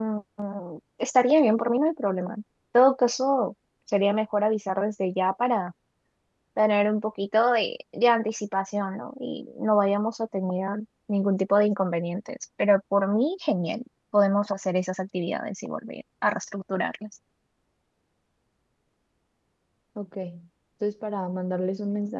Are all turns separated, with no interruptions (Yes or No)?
Yes